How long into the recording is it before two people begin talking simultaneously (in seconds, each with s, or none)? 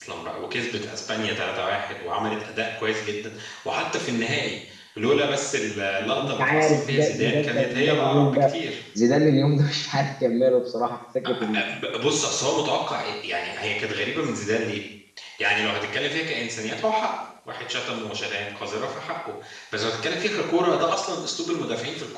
6.0 s